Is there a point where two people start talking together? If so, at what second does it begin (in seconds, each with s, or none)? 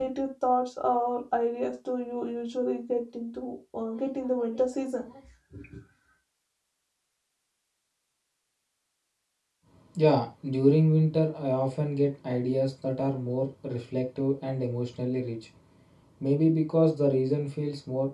none